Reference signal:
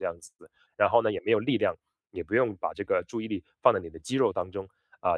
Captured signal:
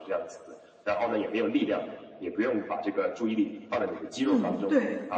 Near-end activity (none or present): present